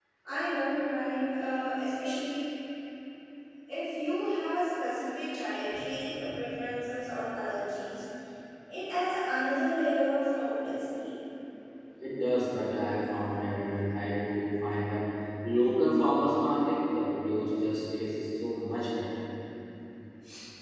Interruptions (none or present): none